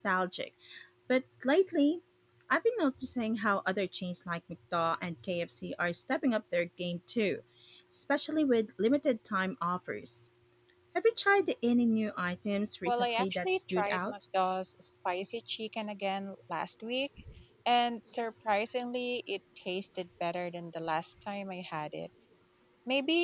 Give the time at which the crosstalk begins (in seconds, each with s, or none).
12.8 s